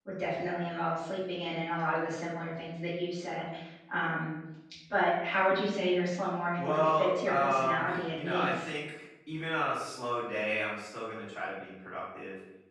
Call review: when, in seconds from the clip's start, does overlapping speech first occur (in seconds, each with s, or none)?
6.6 s